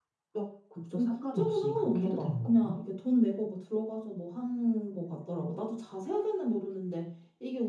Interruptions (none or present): present